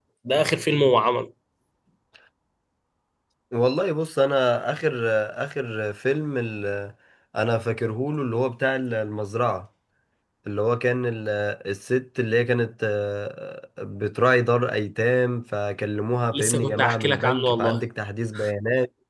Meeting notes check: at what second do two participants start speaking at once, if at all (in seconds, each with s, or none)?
16.3 s